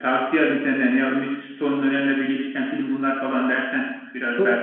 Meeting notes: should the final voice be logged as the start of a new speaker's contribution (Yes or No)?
Yes